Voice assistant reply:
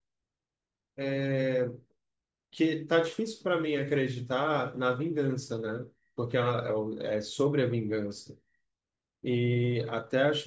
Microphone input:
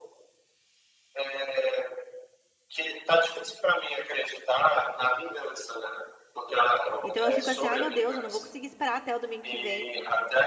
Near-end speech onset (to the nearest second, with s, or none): 7 s